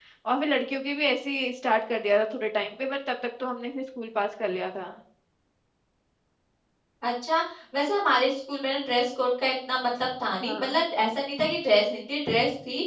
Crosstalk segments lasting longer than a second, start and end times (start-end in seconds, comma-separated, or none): none